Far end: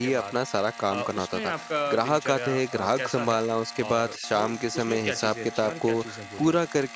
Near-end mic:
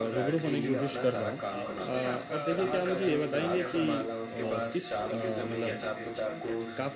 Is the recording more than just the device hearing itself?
Yes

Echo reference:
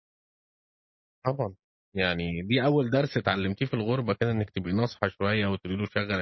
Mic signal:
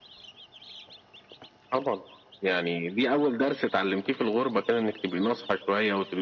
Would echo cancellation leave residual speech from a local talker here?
No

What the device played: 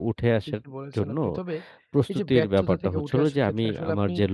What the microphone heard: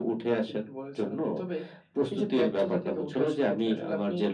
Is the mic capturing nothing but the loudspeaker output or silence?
Yes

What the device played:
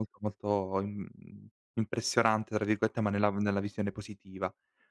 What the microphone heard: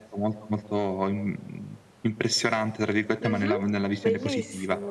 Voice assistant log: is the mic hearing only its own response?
No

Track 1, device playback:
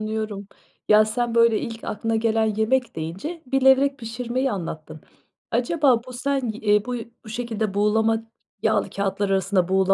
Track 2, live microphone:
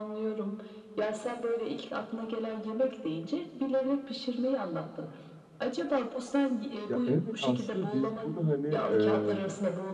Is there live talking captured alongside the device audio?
Yes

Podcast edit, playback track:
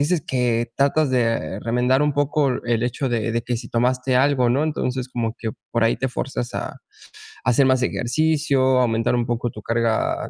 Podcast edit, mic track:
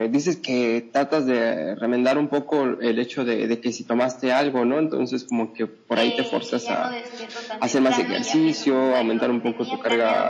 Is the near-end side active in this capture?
Yes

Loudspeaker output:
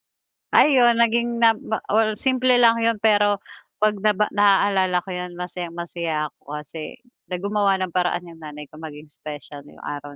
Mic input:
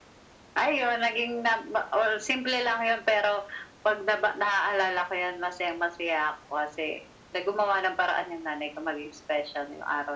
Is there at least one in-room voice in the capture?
No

